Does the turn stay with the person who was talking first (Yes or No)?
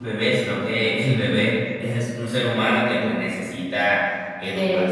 Yes